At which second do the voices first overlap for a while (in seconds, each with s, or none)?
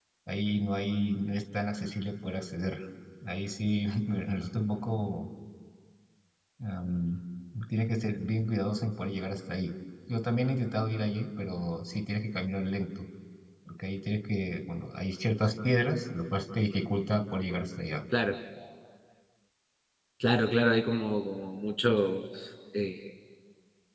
none